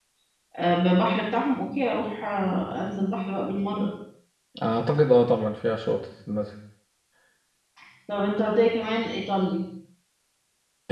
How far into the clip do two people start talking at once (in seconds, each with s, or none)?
none